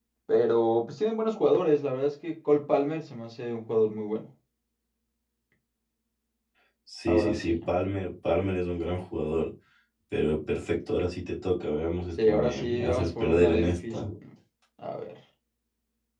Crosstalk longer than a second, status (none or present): present